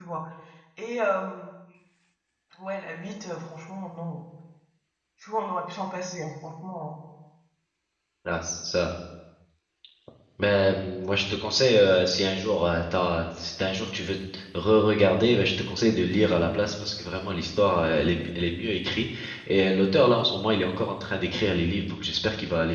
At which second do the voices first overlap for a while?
none

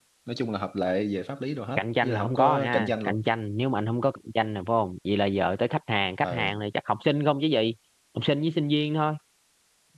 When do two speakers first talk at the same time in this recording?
1.8 s

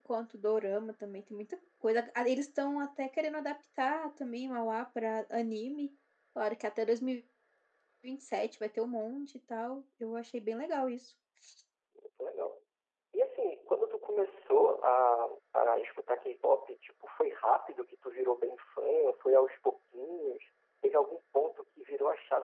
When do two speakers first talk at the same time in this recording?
none

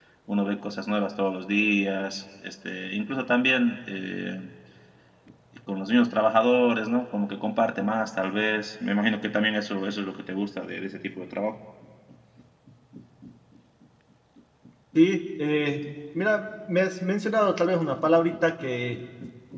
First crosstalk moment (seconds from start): none

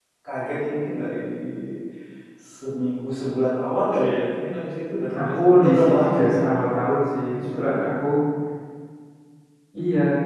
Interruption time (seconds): 5.2 s

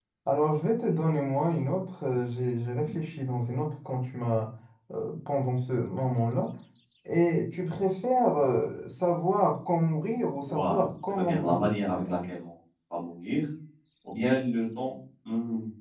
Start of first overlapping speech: 10.5 s

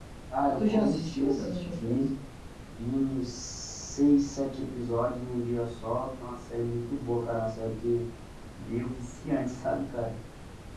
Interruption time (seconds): 0.6 s

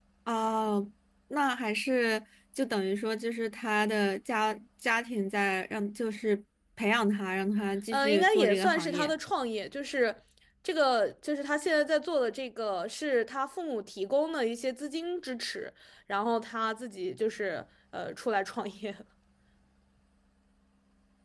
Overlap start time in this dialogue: 7.9 s

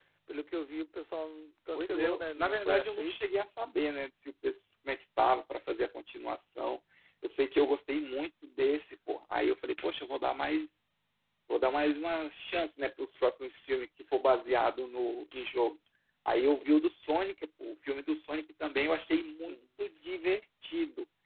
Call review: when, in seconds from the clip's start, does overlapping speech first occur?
1.8 s

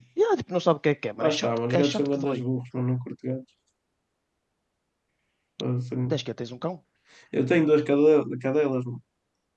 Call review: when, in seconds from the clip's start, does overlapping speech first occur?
1.2 s

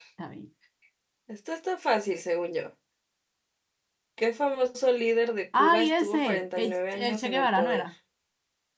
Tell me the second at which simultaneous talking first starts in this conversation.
5.5 s

